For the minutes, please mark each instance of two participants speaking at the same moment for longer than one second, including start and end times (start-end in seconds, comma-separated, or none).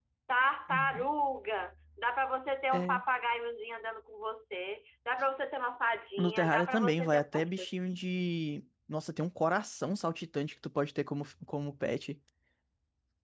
6.2-7.7